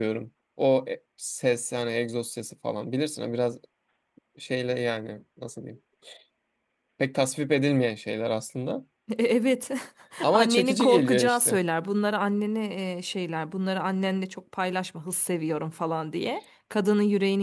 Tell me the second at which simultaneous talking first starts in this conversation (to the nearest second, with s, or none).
10 s